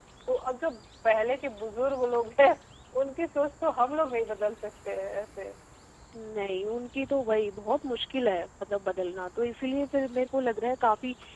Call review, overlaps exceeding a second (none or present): none